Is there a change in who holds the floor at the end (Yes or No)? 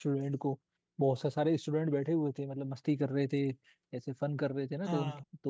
No